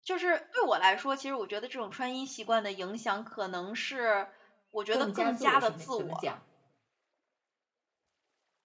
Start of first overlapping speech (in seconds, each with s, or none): 4.9 s